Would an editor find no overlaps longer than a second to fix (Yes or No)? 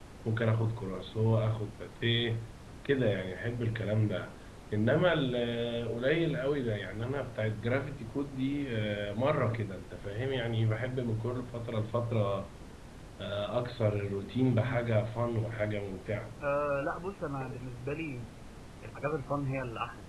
Yes